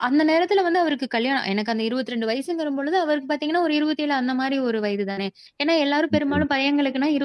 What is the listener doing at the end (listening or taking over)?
listening